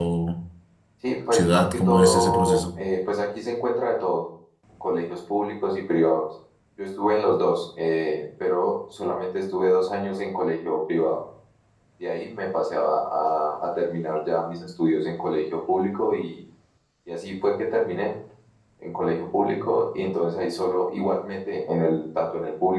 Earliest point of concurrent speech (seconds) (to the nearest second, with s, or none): 1 s